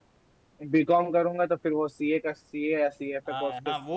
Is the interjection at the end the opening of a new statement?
Yes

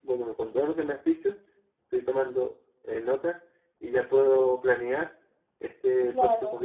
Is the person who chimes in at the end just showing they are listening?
Yes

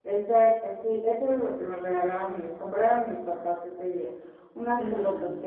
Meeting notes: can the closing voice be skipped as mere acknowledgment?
Yes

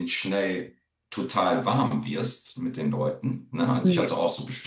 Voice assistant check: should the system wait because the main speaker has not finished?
Yes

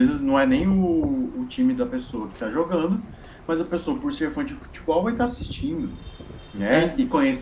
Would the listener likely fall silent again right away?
Yes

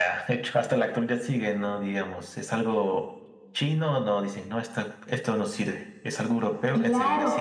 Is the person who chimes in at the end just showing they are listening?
No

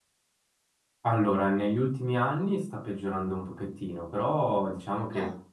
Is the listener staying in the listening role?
Yes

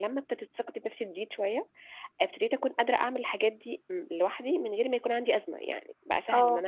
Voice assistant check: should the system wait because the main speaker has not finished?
Yes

